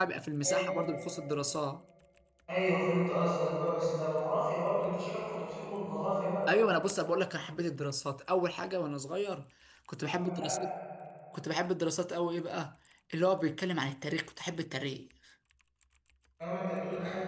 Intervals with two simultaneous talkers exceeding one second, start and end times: none

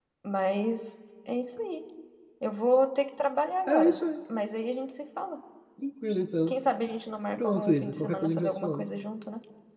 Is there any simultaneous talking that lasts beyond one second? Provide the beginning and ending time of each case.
7.4-8.8

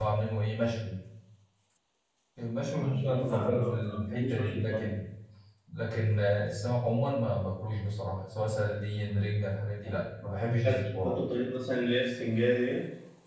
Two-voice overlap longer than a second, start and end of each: 2.7-4.9

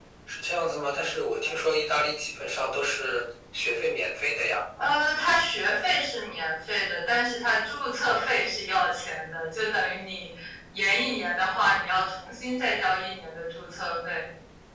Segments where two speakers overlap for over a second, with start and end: none

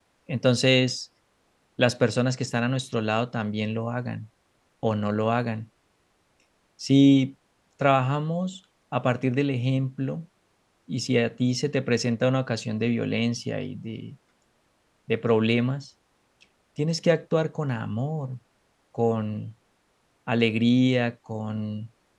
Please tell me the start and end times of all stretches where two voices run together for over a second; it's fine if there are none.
none

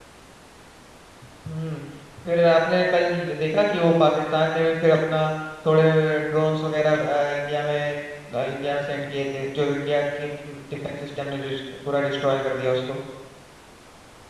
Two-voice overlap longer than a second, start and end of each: none

